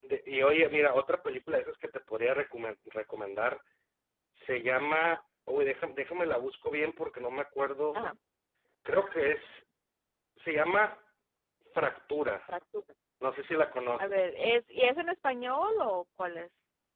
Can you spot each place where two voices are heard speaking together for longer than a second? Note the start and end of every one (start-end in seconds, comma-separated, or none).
none